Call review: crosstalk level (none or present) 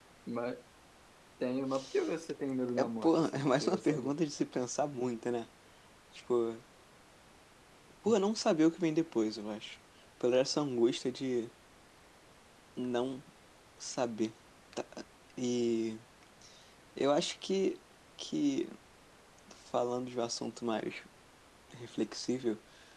present